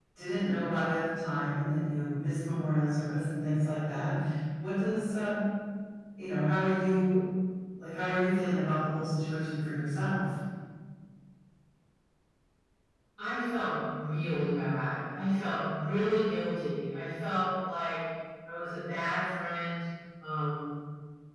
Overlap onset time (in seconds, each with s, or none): none